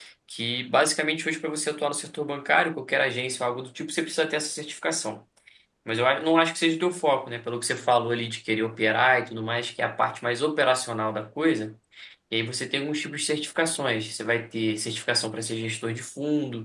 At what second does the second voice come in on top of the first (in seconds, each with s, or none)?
none